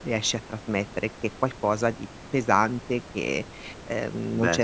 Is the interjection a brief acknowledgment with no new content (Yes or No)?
Yes